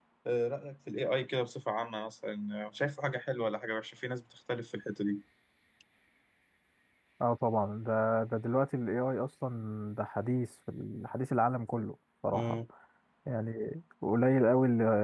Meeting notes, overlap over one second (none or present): none